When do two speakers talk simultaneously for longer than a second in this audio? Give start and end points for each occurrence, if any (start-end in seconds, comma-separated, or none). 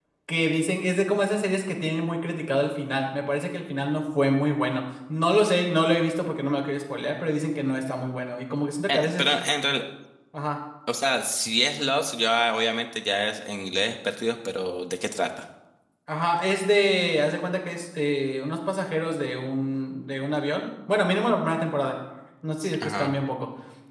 none